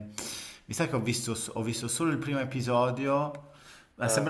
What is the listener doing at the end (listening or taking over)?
listening